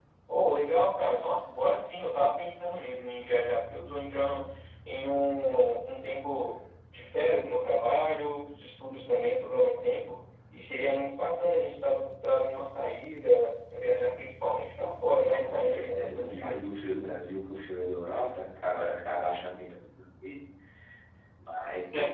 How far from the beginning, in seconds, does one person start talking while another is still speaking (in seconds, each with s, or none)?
15.2 s